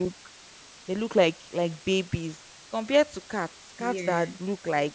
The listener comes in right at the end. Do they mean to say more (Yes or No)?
No